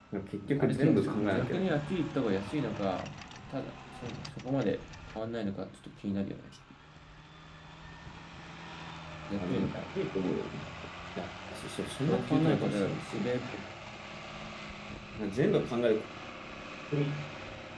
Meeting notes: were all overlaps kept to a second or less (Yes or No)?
No